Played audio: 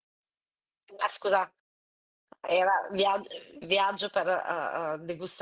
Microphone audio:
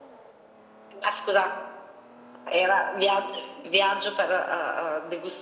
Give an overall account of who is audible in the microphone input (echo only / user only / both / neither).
echo only